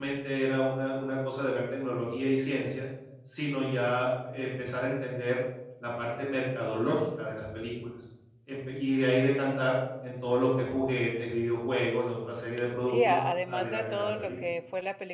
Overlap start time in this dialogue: 12.8 s

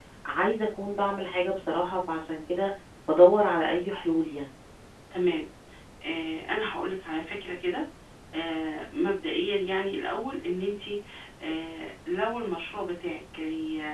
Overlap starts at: none

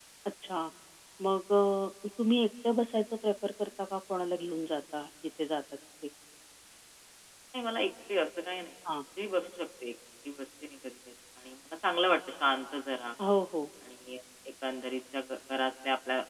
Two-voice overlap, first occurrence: none

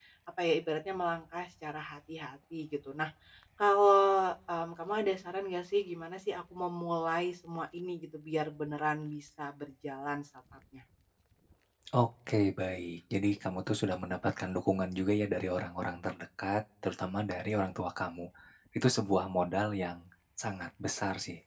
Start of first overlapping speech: none

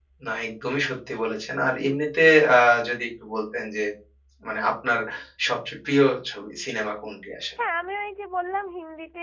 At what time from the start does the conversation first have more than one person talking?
none

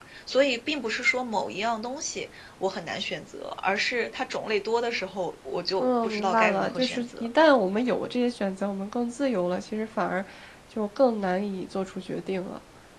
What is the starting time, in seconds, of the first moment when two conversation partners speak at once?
5.8 s

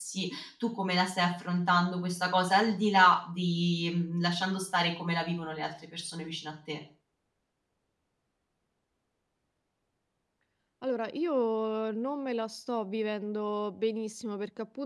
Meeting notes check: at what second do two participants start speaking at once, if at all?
none

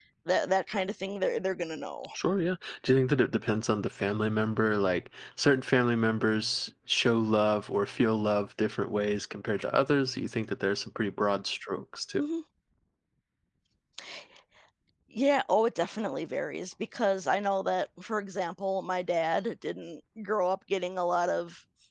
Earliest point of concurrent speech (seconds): none

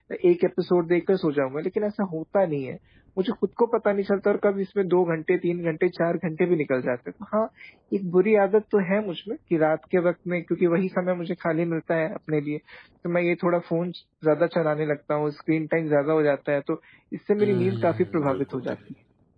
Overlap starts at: 17.4 s

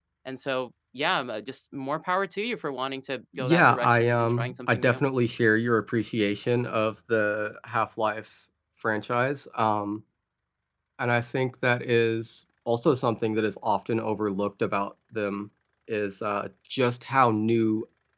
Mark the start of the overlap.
3.4 s

